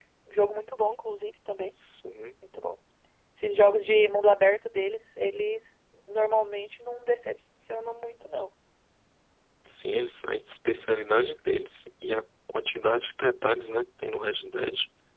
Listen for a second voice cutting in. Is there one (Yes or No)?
No